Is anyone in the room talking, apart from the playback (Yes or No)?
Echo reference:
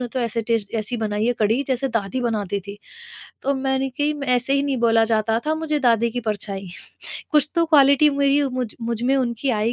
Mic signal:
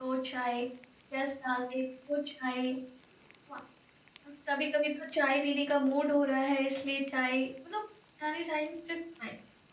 Yes